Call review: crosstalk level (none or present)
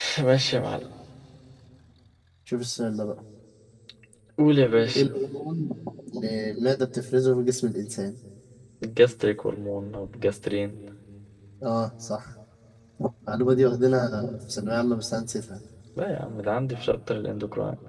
none